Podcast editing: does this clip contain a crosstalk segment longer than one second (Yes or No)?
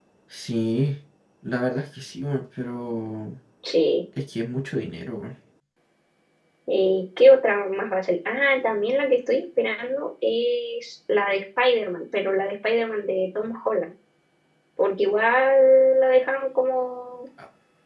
No